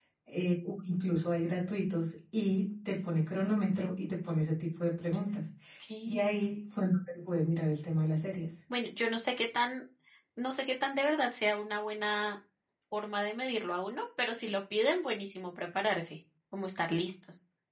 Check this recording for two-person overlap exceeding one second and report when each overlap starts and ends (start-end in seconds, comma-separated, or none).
none